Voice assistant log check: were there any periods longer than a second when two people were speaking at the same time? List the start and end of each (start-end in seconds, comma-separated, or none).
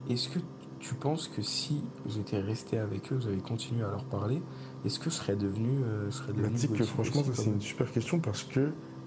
6.4-7.6